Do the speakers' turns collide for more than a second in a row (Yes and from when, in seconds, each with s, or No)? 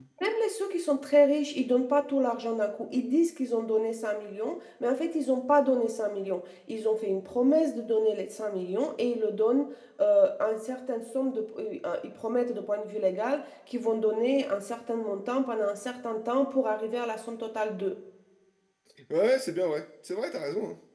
No